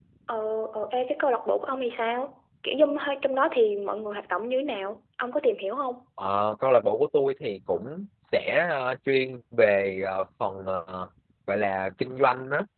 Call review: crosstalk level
none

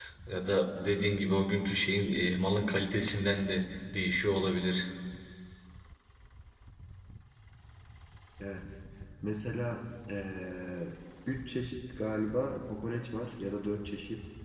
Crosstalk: none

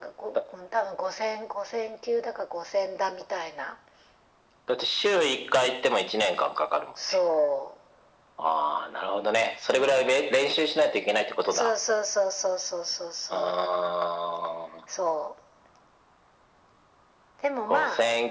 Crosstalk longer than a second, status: none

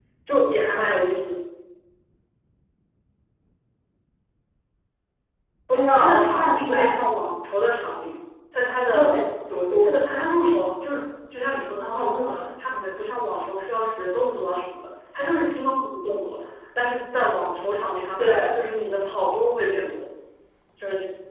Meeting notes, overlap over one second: present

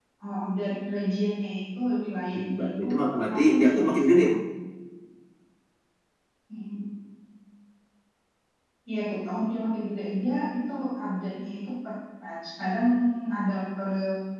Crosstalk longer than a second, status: present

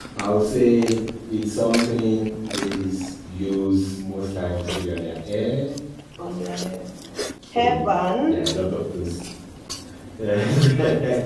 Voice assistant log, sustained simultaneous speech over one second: none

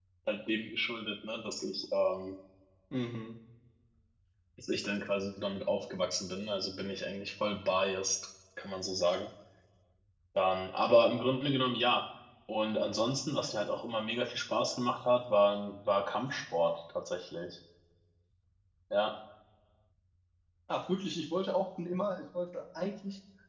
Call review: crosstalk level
none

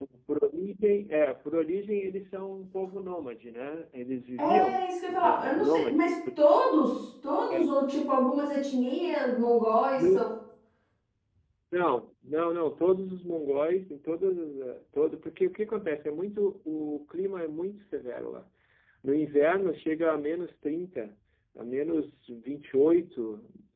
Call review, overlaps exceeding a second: present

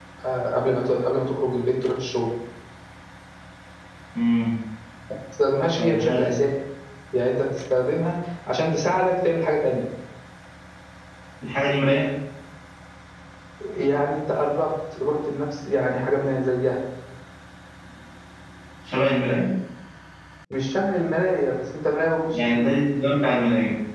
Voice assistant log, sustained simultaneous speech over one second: none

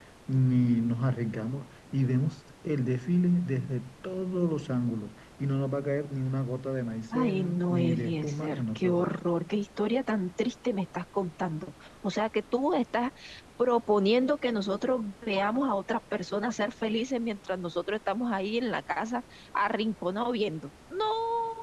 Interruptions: present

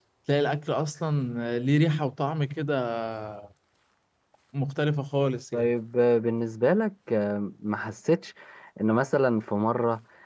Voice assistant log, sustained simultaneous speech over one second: none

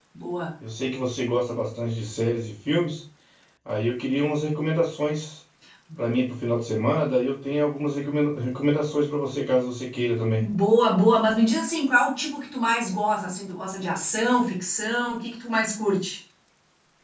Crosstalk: none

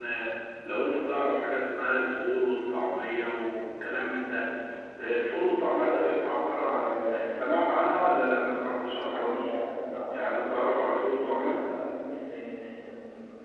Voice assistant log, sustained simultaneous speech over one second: present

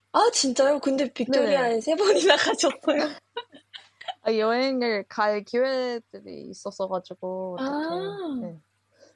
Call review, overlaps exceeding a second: none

